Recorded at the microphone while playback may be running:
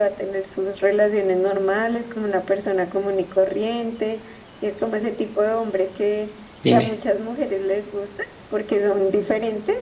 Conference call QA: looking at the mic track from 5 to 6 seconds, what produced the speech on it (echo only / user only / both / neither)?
echo only